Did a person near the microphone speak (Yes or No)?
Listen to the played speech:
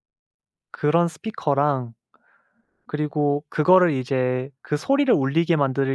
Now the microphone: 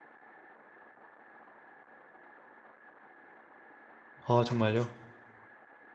Yes